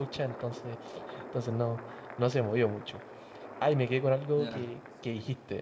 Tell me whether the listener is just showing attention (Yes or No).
Yes